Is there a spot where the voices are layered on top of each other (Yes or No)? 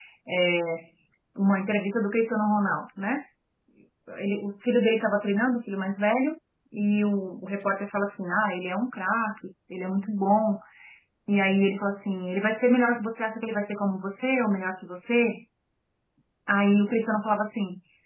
No